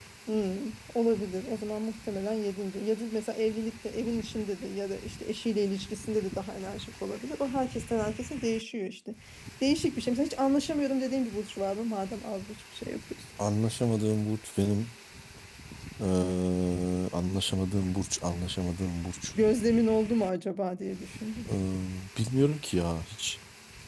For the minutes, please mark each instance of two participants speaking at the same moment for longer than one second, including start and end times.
none

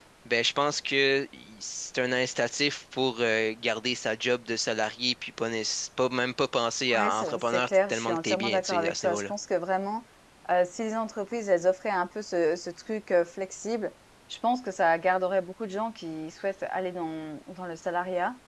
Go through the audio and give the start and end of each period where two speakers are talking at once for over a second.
6.9-9.3

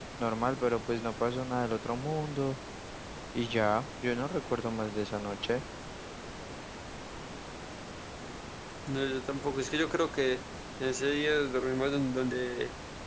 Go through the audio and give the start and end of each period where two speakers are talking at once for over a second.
none

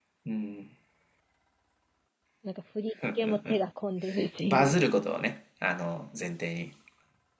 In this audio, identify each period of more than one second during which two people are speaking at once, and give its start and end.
none

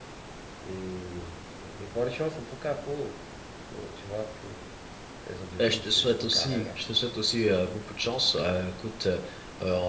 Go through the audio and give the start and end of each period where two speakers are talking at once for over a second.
5.6-6.8

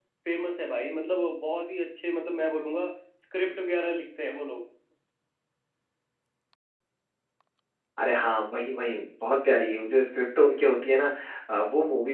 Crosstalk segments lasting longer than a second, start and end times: none

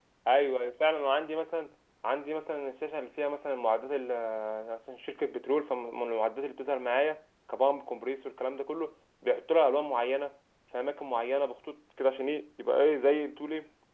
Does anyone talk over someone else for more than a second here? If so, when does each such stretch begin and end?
none

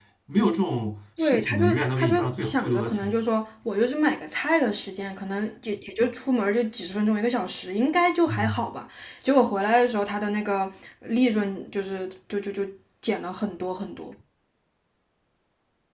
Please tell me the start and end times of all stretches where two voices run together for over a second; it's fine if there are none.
1.2-3.1

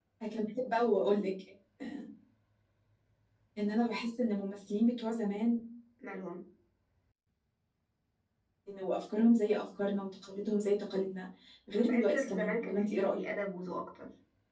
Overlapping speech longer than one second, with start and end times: 11.8-13.2

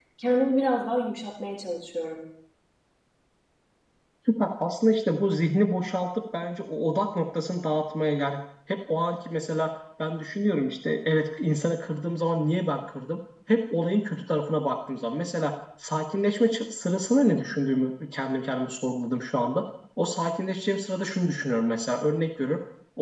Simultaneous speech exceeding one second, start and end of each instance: none

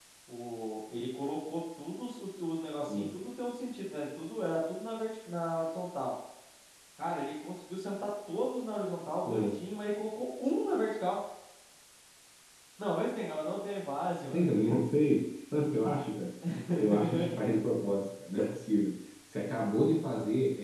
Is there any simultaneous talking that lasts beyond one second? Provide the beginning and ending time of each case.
none

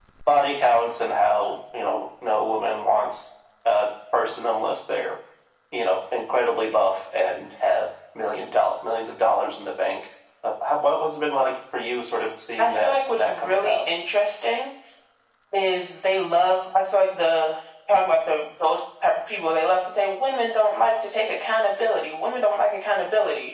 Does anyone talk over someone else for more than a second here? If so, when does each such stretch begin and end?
12.6-13.8

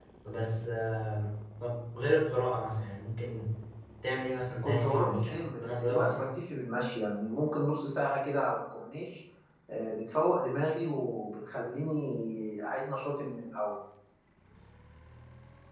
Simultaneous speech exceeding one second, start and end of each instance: 4.6-6.2

